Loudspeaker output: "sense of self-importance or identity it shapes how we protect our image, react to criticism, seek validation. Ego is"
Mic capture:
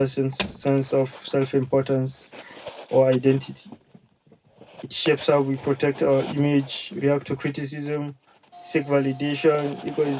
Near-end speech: none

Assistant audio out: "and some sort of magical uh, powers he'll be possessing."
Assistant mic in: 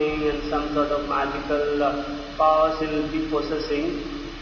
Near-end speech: none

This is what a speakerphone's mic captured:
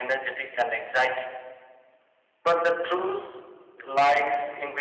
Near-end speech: none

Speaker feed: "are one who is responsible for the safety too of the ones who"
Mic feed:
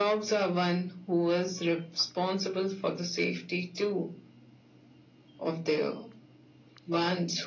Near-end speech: none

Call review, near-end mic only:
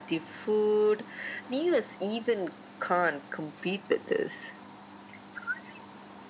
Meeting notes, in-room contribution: none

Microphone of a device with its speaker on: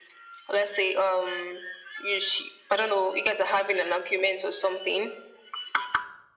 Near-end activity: none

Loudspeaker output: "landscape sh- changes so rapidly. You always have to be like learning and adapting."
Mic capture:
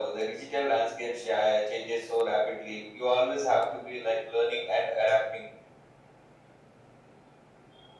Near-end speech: none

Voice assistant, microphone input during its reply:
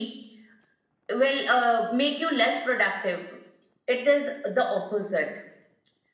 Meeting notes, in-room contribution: none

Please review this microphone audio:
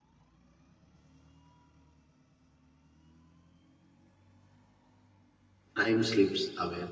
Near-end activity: present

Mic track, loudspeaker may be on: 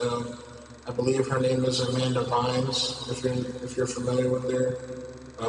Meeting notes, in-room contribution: none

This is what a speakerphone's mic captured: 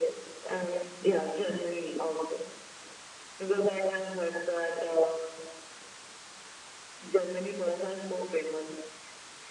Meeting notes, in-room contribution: none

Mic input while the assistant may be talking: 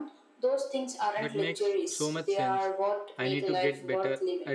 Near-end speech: present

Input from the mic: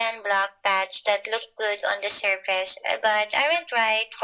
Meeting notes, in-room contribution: none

